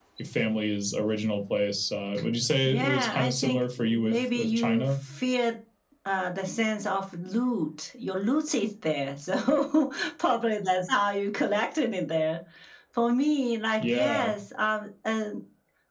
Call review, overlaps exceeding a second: present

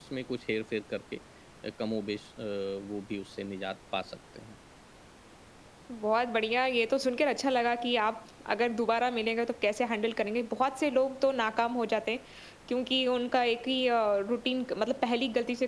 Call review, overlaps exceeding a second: none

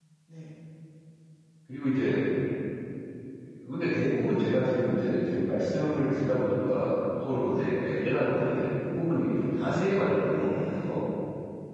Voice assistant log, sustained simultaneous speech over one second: present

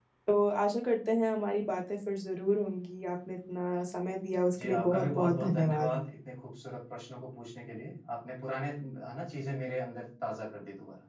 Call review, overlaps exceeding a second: present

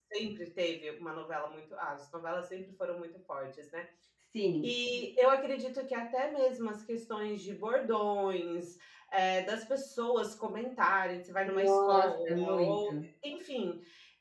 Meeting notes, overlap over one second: present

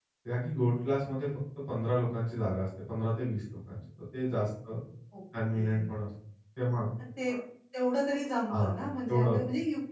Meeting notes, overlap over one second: none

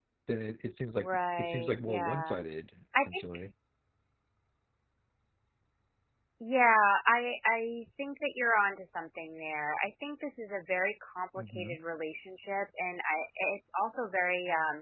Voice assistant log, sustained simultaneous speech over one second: present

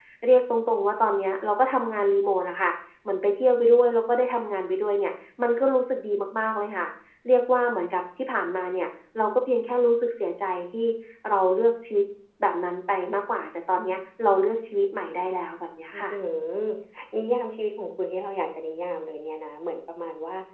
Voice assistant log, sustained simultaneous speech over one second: none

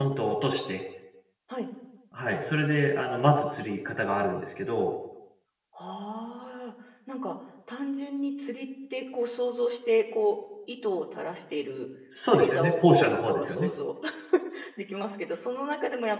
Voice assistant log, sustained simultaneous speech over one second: present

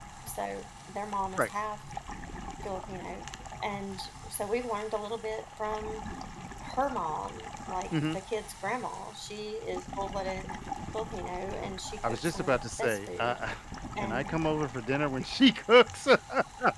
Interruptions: present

